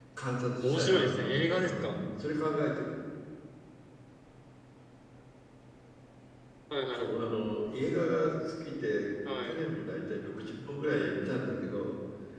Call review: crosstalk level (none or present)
present